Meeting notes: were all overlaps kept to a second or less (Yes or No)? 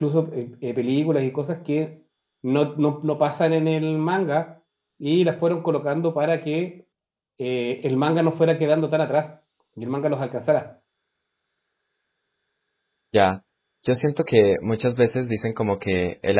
Yes